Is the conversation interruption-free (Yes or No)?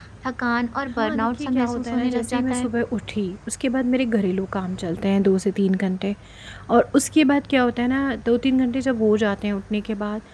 No